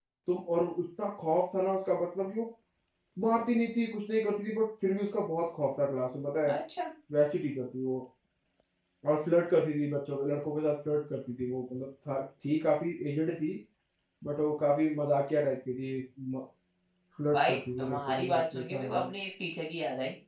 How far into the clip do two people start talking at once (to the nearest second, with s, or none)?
17 s